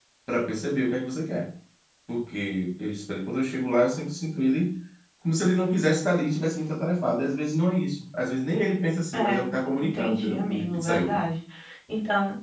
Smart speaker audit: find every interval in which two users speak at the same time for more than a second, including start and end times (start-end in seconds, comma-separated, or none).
9.1-11.2